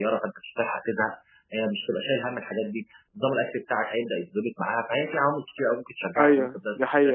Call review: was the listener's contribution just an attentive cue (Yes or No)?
No